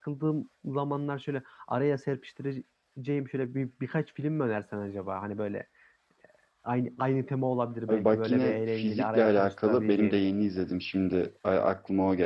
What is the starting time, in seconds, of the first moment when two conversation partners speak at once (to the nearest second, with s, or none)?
8 s